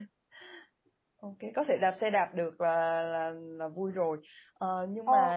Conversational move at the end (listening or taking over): listening